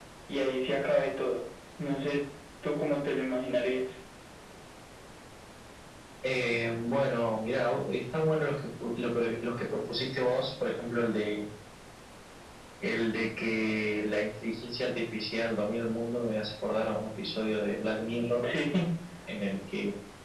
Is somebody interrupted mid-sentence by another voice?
No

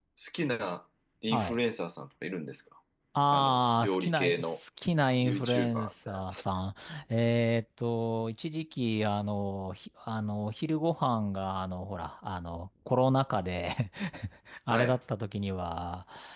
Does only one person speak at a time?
No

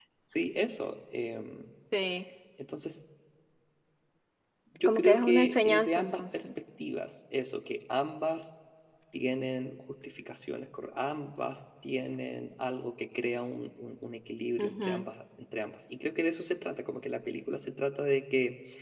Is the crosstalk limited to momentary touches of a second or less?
No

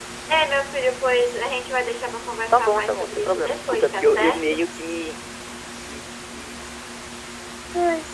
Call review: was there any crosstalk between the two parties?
Yes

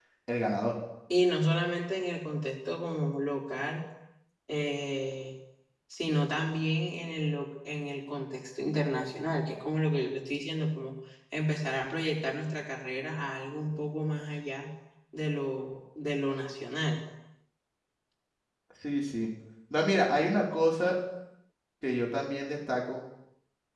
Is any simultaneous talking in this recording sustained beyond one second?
No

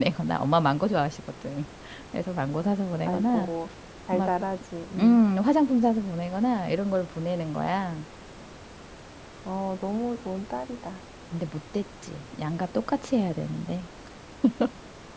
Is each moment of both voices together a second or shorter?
Yes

